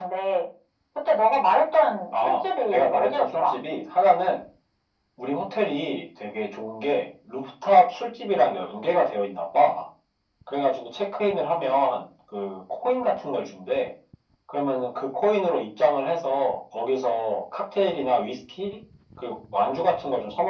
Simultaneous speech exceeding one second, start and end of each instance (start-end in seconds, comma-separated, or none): 2.1-3.5